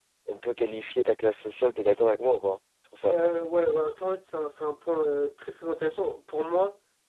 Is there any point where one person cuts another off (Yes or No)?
No